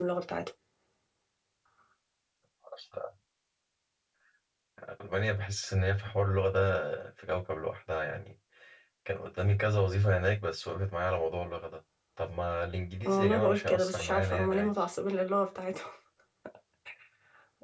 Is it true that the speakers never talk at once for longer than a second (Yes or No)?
No